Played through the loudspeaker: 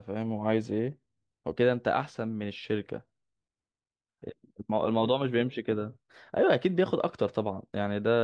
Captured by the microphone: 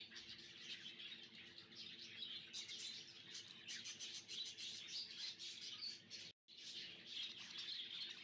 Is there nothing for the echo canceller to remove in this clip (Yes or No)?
Yes